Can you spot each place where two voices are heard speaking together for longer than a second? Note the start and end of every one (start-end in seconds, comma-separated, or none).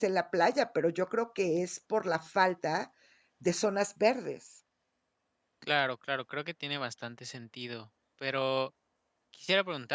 none